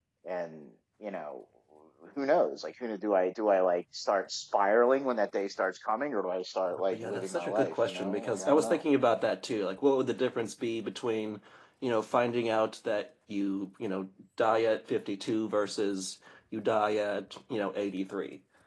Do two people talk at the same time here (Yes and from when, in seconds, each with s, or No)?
Yes, from 6.7 s